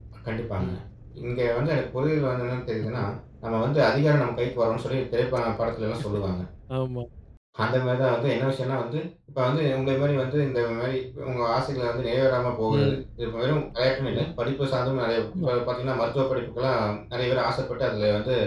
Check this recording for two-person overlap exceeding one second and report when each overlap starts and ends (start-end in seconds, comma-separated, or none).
none